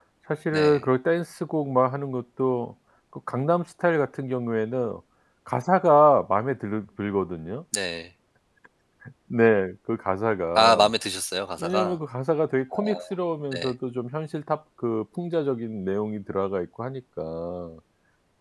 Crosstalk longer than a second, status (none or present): none